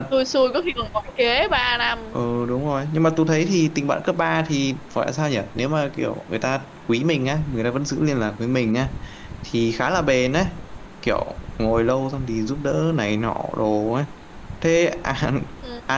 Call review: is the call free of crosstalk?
Yes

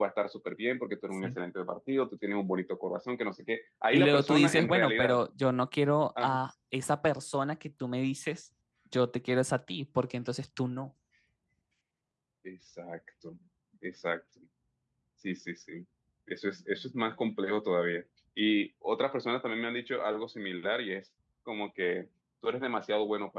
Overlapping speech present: Yes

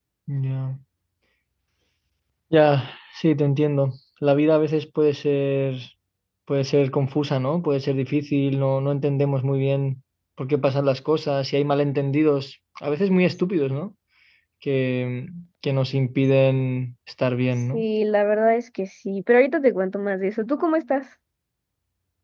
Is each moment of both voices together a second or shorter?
Yes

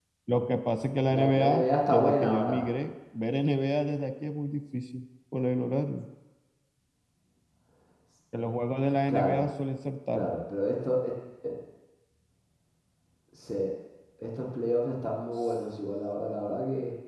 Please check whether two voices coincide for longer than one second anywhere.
Yes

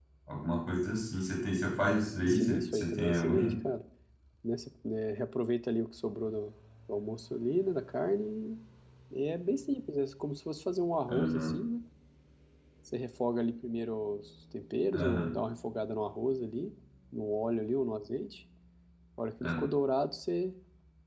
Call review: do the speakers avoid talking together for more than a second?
No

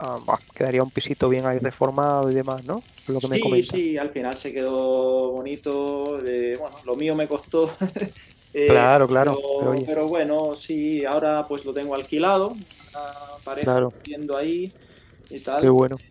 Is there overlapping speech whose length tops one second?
Yes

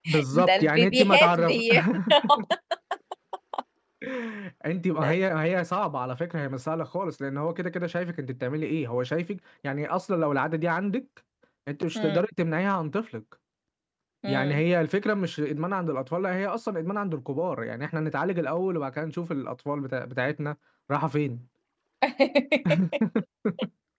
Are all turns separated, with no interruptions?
No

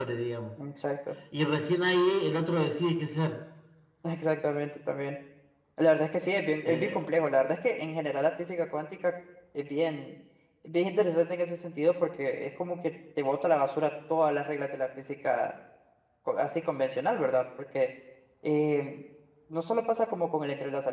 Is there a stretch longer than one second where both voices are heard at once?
No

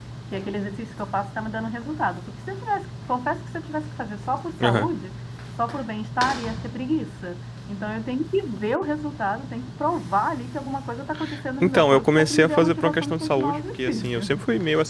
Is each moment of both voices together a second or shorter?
No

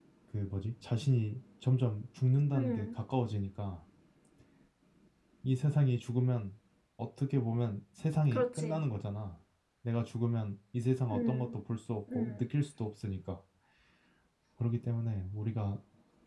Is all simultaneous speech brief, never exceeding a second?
Yes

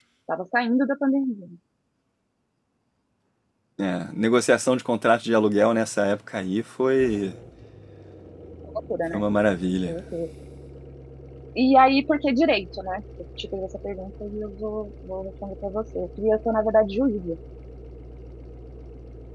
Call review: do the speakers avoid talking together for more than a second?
Yes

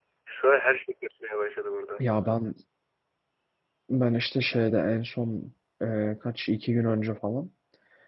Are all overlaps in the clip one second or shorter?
Yes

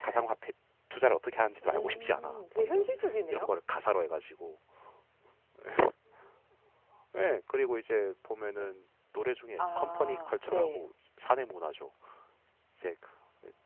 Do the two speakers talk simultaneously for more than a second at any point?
Yes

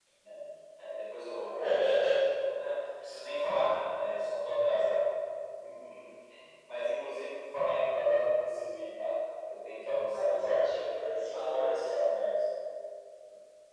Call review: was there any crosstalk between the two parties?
Yes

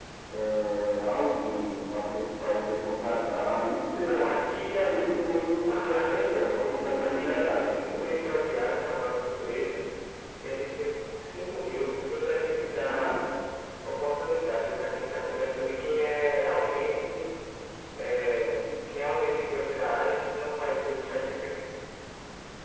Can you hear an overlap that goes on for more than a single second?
Yes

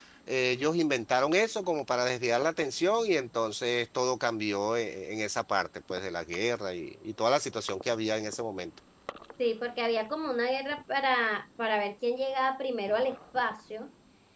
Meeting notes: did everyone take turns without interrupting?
Yes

